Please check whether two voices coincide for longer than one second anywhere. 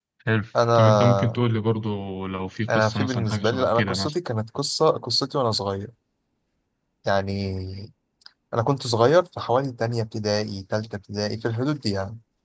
Yes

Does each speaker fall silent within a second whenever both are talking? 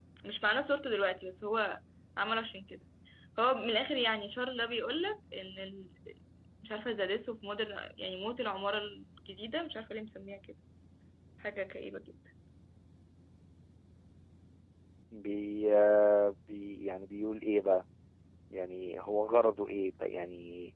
Yes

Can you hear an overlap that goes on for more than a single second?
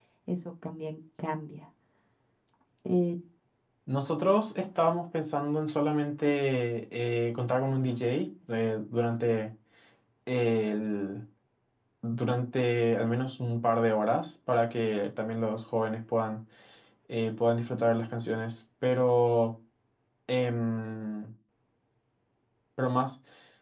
No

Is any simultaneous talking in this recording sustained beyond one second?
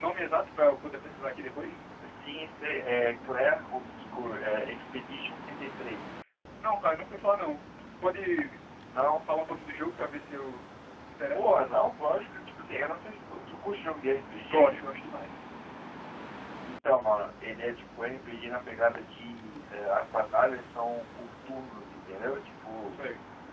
No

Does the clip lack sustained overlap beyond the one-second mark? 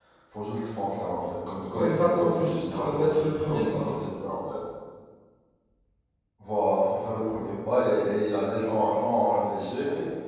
No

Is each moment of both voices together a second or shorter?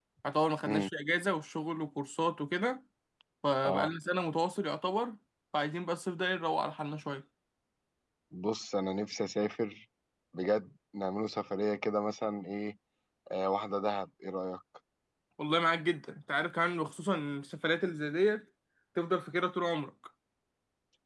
Yes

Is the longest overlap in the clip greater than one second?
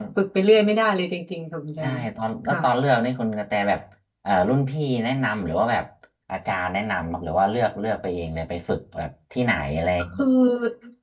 No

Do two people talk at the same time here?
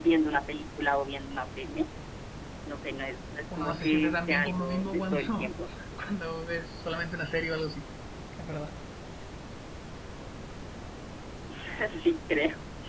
Yes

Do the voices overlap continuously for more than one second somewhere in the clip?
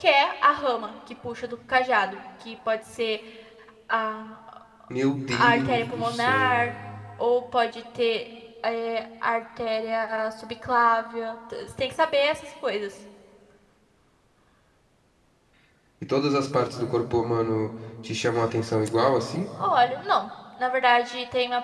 Yes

